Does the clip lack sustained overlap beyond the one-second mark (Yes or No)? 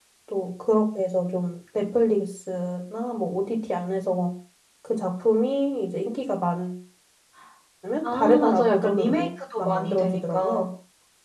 No